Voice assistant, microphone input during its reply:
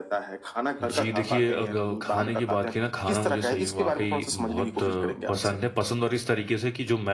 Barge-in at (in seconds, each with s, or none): 0.8 s